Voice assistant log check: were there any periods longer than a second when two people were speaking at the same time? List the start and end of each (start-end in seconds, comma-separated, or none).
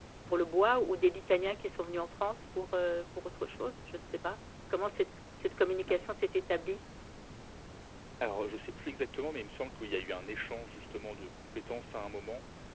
none